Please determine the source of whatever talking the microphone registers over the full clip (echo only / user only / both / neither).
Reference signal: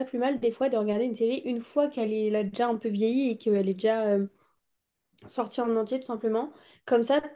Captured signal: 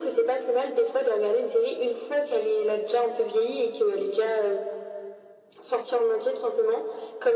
echo only